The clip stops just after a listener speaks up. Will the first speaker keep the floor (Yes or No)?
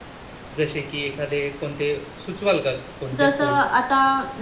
No